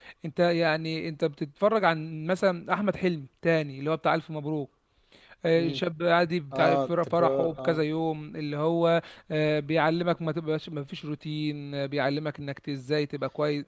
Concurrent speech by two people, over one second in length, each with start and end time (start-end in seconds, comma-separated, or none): 6.5-7.8